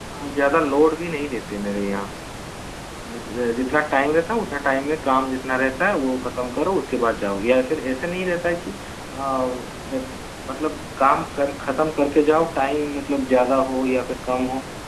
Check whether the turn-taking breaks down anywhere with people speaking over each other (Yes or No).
No